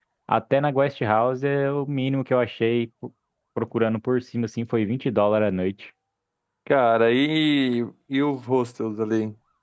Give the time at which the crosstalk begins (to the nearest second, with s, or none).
none